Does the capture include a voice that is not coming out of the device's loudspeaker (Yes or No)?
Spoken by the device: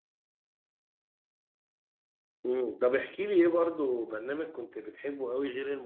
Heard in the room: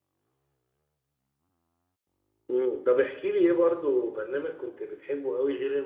No